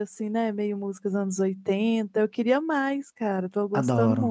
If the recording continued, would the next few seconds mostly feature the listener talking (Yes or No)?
Yes